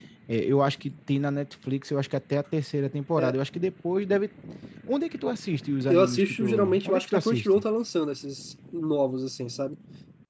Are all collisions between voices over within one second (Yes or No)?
No